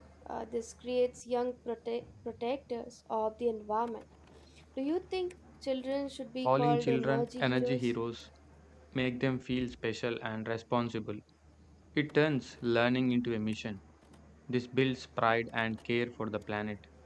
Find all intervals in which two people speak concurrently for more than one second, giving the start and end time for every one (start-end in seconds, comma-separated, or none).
6.4-7.9